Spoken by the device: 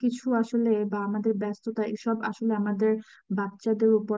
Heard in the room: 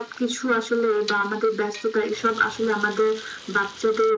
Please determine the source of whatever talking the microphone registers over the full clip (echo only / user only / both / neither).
echo only